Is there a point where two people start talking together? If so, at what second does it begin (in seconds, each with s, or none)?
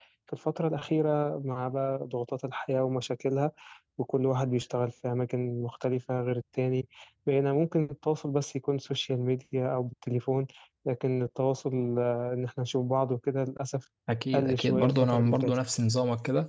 14.3 s